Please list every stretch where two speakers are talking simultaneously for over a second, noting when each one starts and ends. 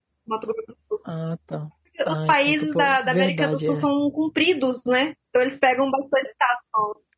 2.1-3.9

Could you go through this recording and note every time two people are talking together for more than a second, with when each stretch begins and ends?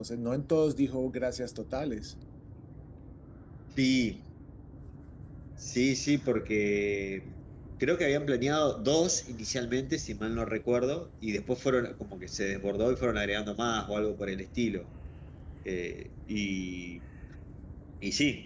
none

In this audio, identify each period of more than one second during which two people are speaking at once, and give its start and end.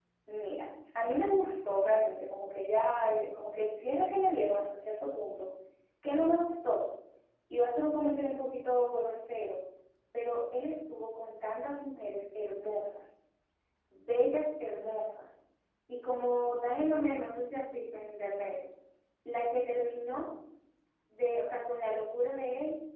none

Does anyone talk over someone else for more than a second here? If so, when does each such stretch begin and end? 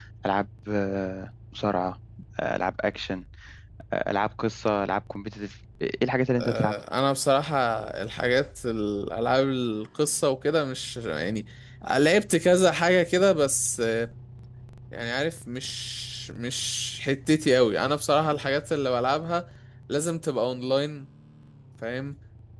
none

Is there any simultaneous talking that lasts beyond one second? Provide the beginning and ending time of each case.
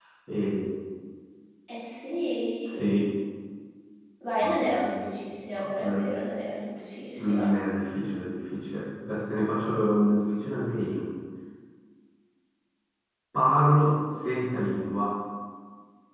none

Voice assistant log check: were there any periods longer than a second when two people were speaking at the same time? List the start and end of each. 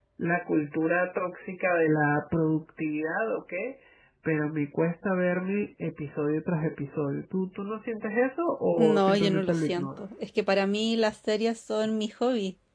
8.8-10.0

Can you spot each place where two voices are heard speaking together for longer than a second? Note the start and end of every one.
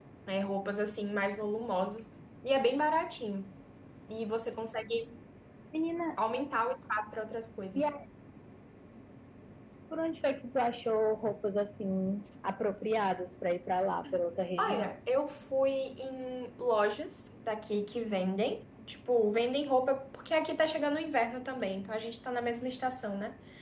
none

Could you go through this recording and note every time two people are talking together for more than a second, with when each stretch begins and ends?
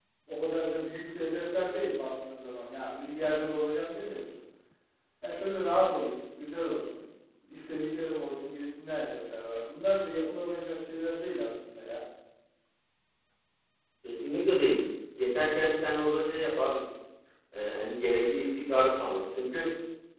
none

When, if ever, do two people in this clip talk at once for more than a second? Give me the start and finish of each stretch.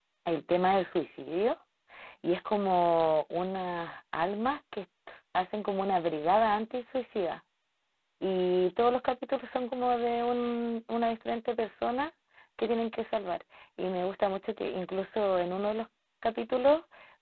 none

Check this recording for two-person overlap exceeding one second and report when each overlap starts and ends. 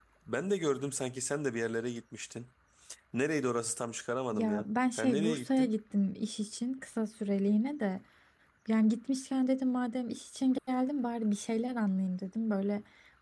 4.3-5.7

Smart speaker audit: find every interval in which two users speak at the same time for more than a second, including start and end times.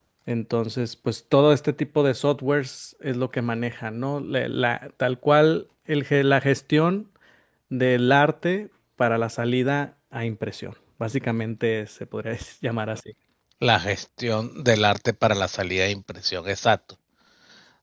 none

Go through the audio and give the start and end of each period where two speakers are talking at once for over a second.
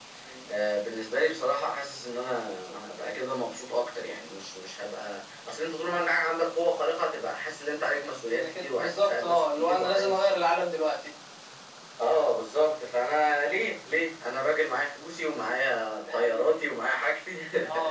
8.3-10.2

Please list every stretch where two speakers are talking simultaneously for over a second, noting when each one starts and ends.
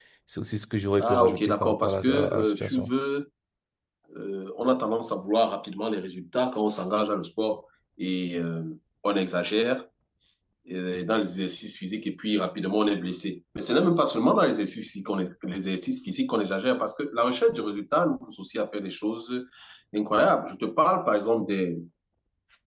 1.0-2.9

